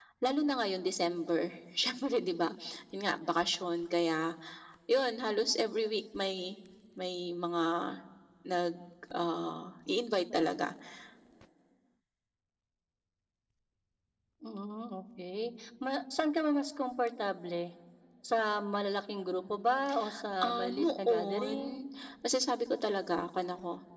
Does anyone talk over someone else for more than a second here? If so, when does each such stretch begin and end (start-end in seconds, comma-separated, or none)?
20.4-21.8